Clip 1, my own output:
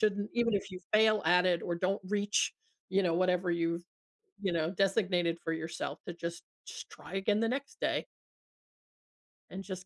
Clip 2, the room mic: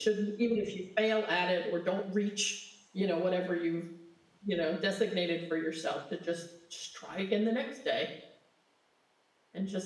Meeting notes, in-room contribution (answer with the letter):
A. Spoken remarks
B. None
B